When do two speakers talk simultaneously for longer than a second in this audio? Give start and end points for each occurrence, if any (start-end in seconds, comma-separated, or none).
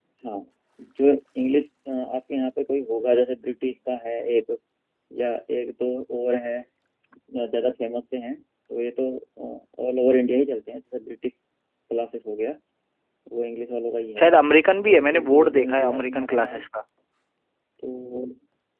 14.8-16.6